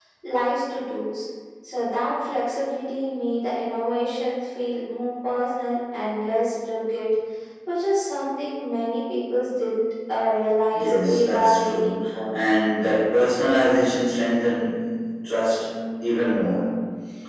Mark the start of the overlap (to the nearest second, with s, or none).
11 s